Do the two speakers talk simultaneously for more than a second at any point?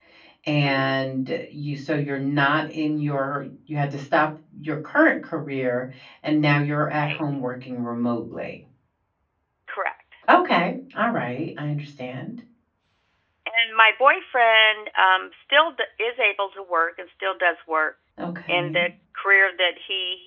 No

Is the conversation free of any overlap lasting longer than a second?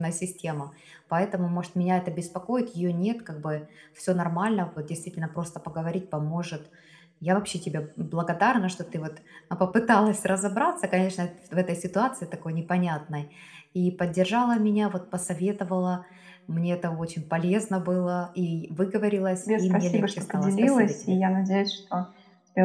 No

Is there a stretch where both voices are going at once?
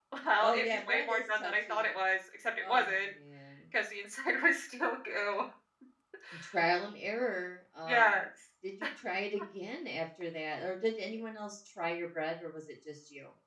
Yes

